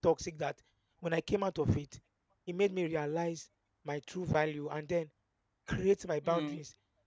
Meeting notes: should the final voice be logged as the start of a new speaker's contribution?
No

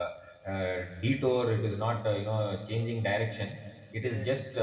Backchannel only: Yes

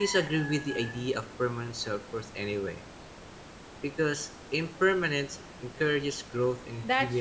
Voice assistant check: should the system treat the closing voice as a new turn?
Yes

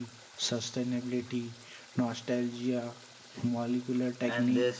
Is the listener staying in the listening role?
No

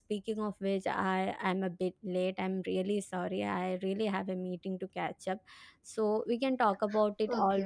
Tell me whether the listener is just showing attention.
No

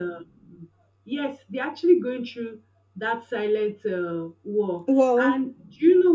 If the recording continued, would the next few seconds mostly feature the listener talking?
No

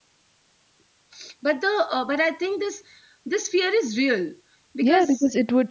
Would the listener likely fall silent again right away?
No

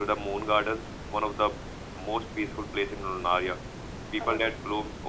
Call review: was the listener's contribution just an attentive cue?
Yes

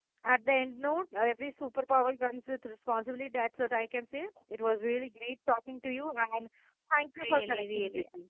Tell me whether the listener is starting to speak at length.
Yes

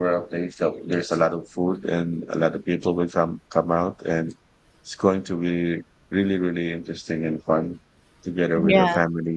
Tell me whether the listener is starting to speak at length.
No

